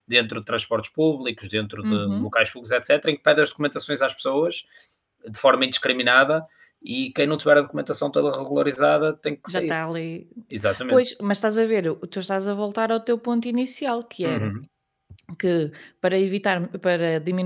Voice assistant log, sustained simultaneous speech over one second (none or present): none